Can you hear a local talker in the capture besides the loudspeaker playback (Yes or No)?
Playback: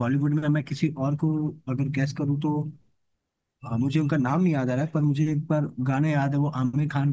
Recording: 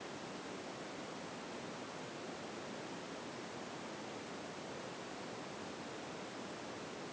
No